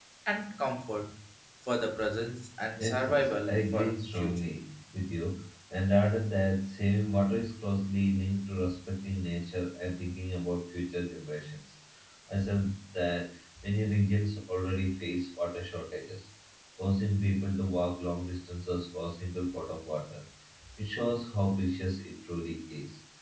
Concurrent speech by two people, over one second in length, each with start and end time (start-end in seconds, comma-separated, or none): 2.8-4.4